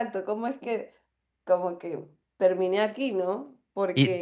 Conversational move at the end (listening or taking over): taking over